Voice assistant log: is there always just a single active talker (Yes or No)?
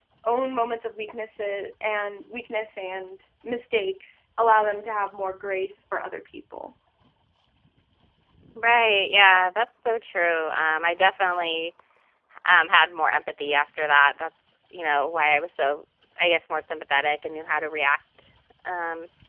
Yes